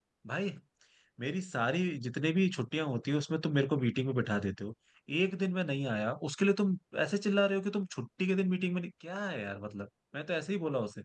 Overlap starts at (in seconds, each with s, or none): none